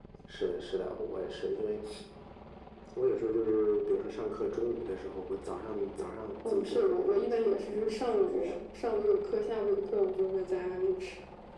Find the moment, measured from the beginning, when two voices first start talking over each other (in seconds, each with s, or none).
6.4 s